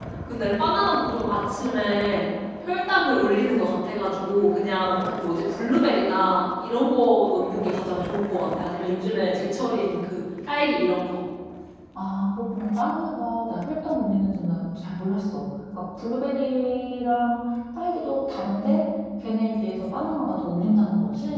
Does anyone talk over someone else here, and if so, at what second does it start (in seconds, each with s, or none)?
none